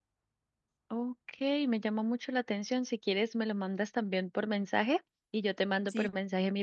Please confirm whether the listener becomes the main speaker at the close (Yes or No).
No